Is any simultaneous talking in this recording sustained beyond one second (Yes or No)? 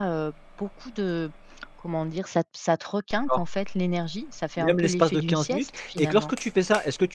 Yes